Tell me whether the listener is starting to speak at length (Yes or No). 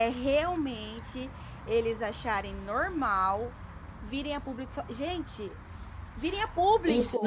Yes